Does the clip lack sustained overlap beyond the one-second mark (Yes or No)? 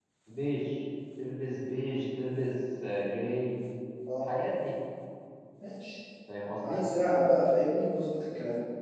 Yes